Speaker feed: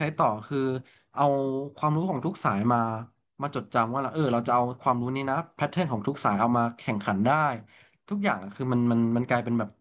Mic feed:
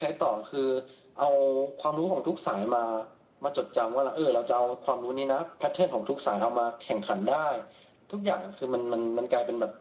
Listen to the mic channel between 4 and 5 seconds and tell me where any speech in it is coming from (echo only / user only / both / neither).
echo only